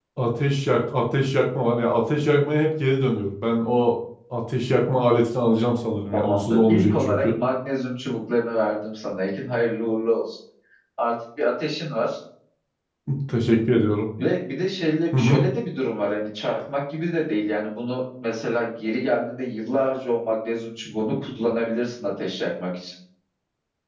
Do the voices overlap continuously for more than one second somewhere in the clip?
Yes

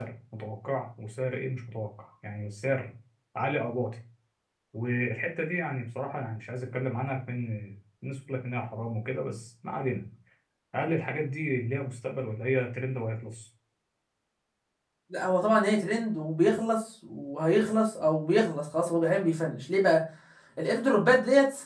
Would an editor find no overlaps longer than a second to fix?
Yes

